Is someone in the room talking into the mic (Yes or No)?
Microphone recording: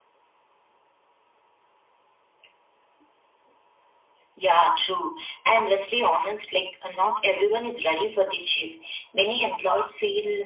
No